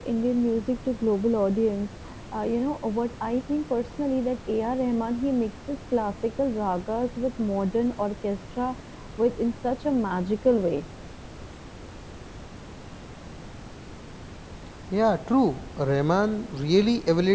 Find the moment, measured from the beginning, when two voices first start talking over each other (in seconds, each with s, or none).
none